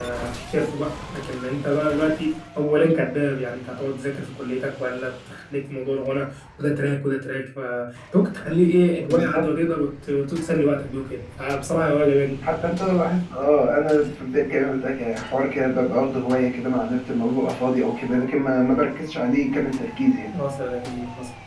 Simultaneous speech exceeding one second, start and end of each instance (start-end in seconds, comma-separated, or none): none